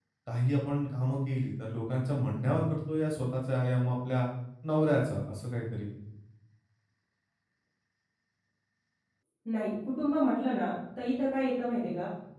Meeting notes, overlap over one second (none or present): none